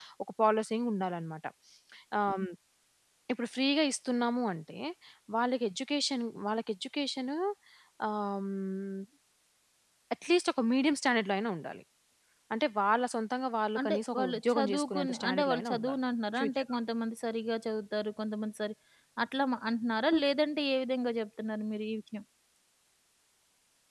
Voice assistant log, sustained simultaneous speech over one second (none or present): present